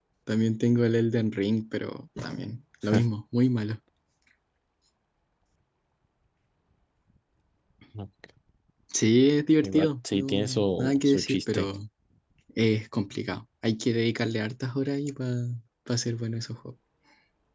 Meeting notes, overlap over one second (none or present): present